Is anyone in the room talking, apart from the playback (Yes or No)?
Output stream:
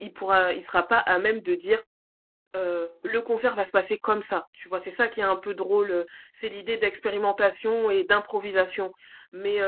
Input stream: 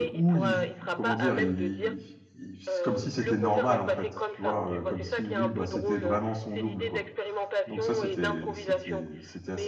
Yes